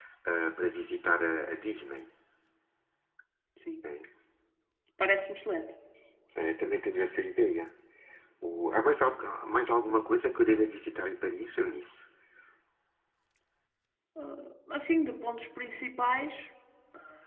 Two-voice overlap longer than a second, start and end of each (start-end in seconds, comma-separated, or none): none